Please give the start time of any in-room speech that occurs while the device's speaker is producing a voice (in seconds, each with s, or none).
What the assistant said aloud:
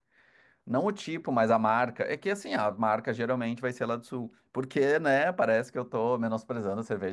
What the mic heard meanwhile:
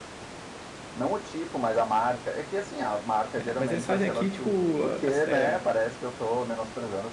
3.3 s